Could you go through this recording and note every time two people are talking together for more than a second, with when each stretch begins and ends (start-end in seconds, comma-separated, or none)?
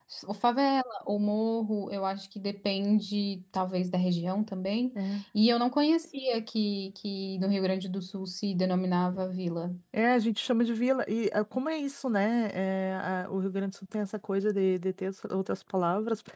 none